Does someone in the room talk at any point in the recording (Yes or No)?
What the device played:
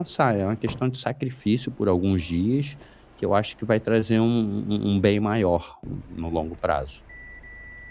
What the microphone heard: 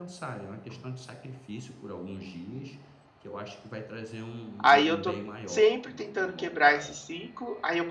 Yes